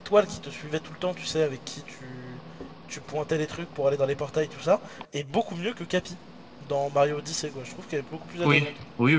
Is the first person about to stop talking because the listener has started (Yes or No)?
Yes